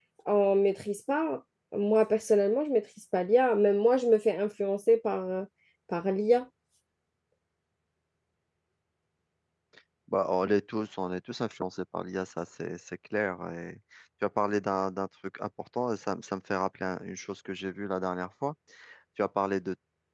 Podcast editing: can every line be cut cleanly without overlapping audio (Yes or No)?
Yes